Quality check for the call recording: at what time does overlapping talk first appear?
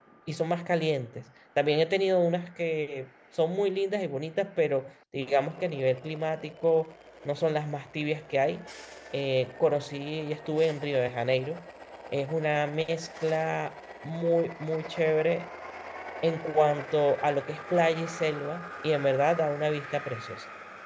none

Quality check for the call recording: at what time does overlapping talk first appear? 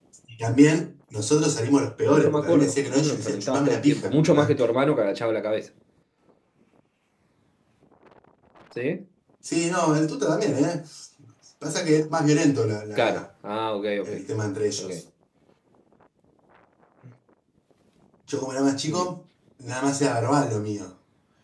2.1 s

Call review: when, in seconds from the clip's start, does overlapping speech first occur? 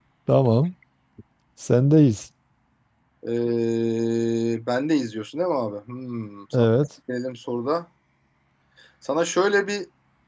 none

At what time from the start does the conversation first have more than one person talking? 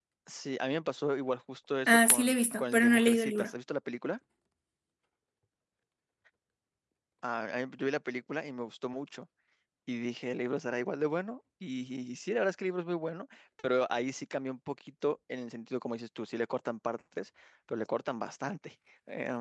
1.9 s

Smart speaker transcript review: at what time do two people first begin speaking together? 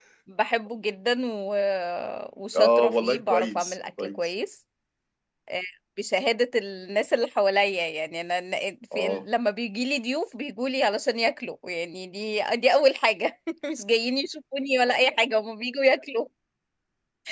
2.5 s

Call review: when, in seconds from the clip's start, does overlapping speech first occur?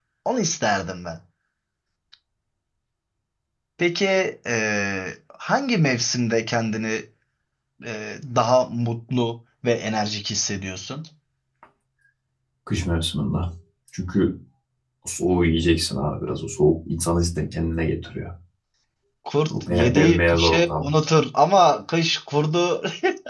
19.5 s

